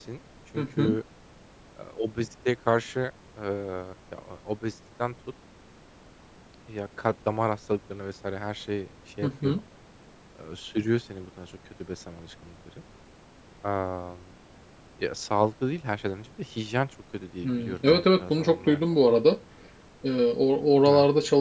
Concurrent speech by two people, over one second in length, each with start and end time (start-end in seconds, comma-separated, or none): 17.4-18.8